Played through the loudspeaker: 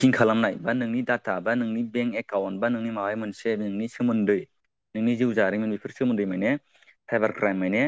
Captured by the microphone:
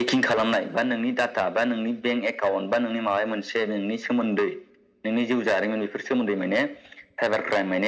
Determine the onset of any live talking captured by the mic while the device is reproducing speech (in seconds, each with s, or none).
none